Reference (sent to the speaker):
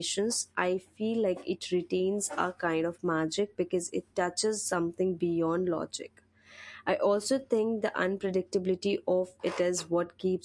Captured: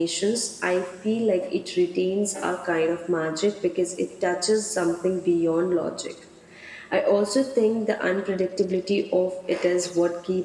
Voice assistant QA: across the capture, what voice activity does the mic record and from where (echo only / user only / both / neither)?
echo only